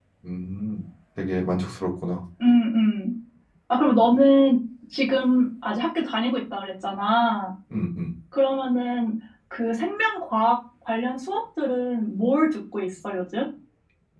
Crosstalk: none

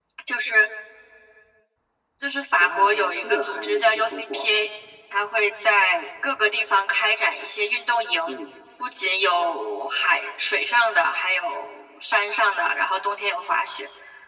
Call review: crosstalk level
present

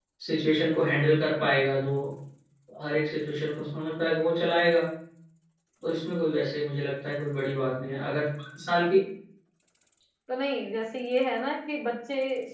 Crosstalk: none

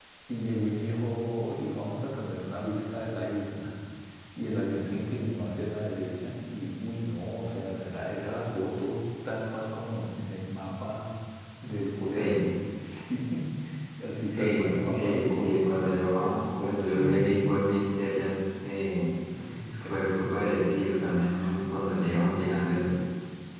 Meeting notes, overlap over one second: present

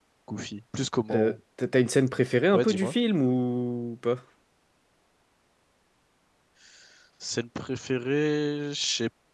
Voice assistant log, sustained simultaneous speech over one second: none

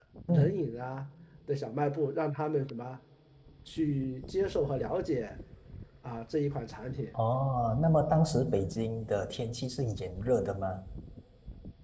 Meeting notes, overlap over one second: none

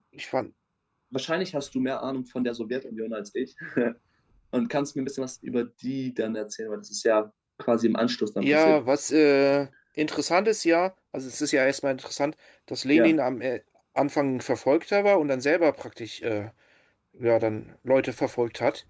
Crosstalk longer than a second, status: none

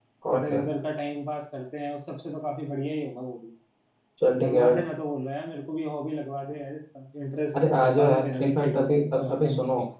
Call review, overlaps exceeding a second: present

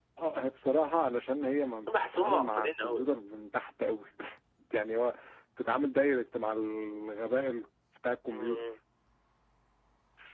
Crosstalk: present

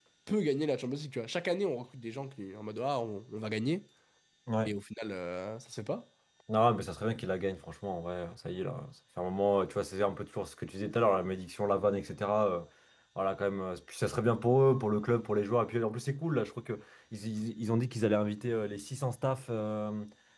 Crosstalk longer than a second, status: none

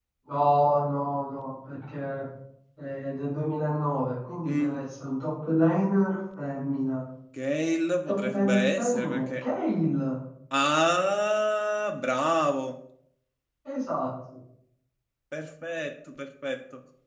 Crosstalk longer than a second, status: present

